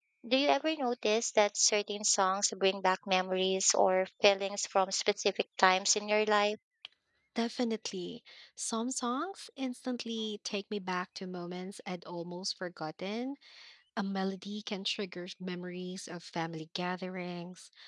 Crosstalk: none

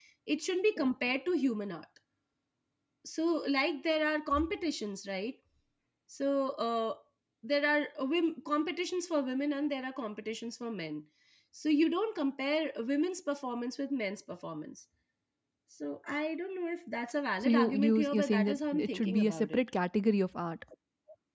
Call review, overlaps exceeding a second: present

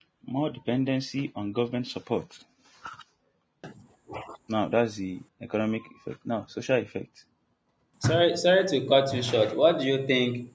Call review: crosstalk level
none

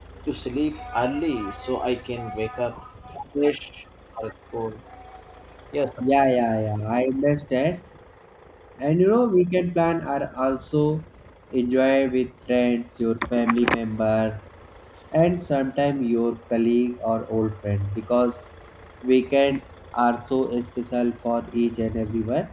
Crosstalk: none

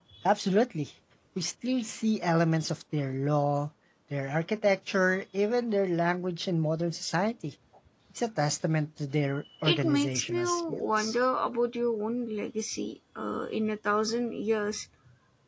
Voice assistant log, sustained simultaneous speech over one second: present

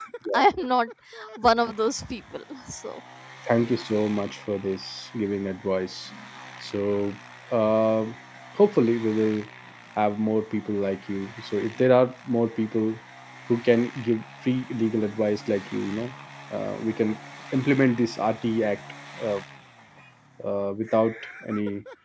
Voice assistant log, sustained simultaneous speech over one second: none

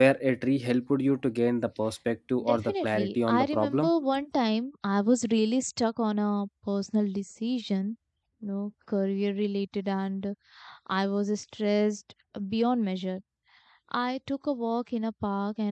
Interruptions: present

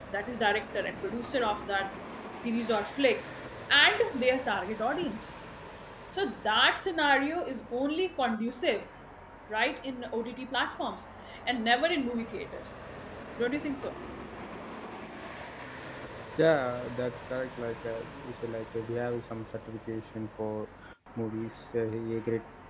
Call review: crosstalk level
none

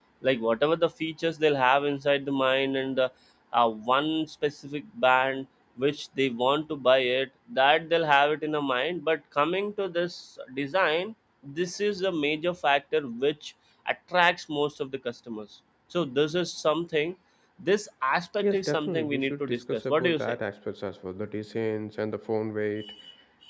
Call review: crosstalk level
present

